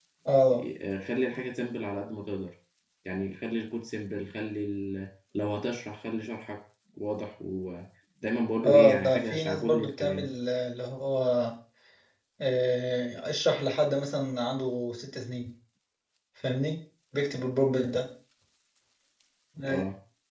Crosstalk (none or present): present